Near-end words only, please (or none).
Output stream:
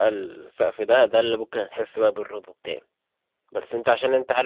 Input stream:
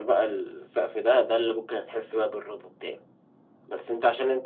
none